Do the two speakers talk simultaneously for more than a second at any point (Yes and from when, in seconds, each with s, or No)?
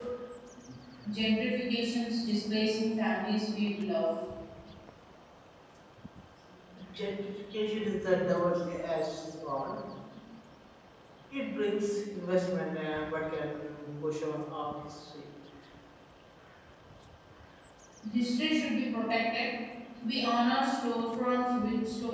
No